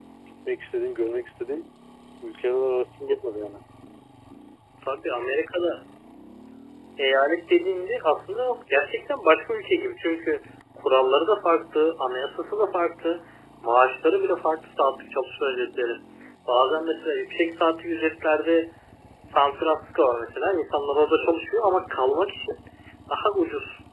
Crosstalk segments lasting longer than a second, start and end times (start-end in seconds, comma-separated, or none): none